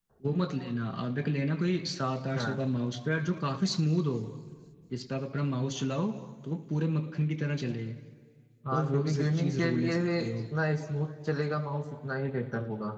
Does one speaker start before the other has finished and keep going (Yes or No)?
Yes